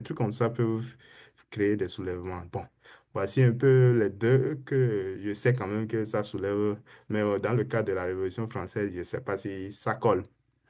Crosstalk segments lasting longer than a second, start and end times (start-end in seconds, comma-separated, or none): none